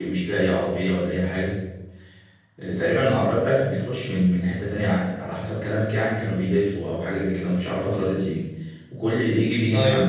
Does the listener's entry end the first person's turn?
No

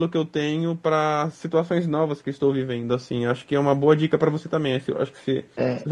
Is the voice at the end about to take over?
Yes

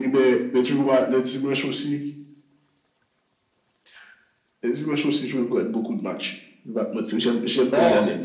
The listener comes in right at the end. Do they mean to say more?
Yes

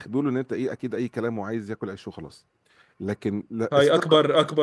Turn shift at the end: Yes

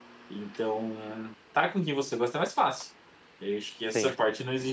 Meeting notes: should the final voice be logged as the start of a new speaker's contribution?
No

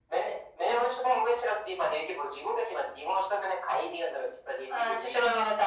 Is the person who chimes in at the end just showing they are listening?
No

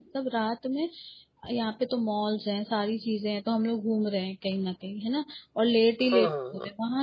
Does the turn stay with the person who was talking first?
Yes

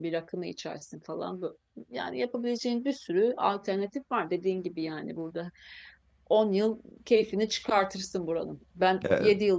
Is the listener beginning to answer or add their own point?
No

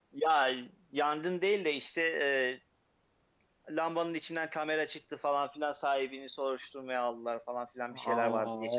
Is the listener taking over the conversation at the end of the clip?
Yes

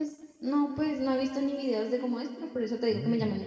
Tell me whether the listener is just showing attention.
Yes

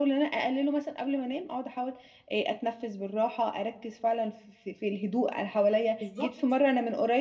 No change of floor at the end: Yes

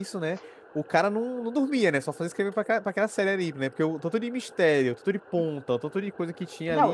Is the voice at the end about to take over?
Yes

